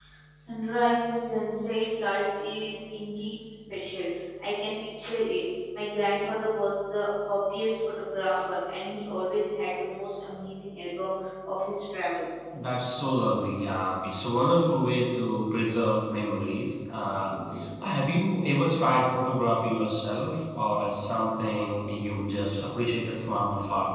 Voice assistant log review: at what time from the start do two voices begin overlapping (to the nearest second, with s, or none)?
none